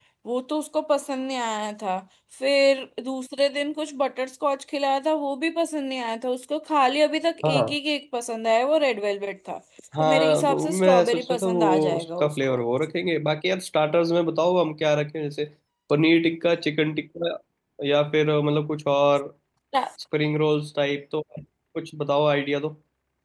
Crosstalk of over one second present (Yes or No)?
Yes